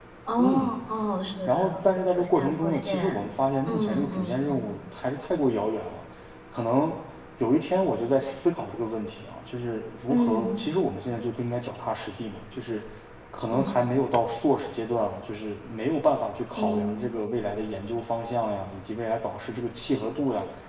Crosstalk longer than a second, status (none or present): present